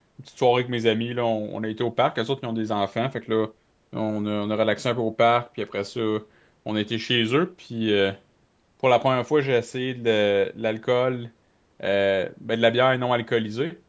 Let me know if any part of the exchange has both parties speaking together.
No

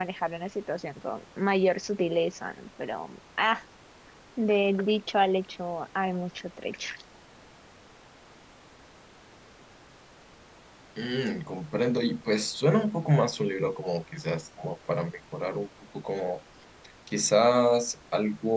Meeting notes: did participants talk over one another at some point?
No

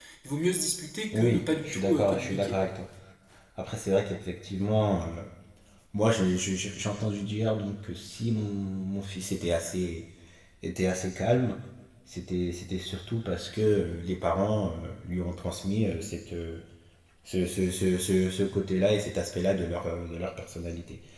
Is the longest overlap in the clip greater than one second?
Yes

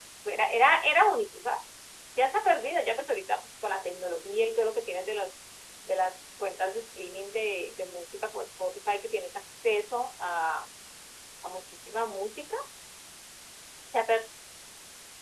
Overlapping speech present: No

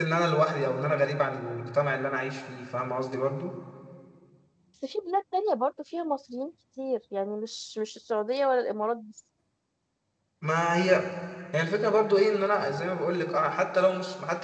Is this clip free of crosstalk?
Yes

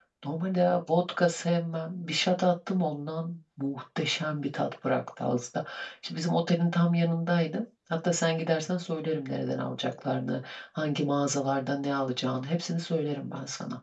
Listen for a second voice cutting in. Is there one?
No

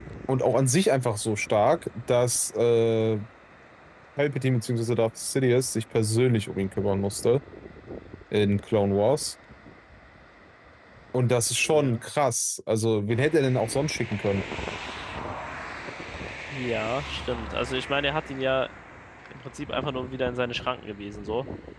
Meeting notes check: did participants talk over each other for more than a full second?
No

